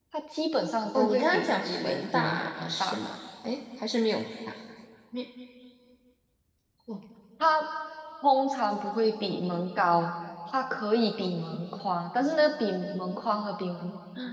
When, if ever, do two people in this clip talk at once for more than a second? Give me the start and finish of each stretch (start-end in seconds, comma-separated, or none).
0.9-3.0